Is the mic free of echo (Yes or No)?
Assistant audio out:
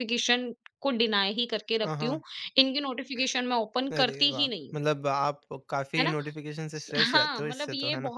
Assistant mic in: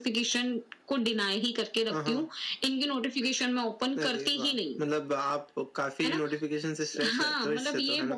No